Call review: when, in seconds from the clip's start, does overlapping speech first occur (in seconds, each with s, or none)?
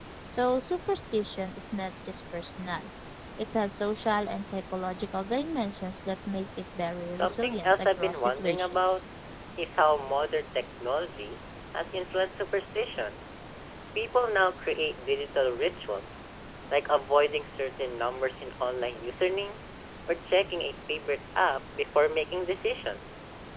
7.2 s